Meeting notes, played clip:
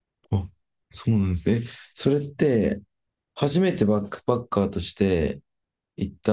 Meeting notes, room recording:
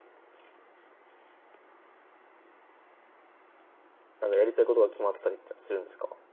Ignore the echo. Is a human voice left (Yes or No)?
Yes